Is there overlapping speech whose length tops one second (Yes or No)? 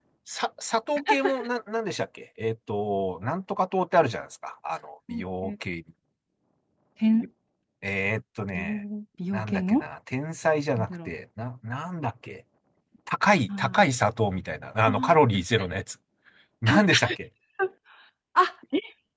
No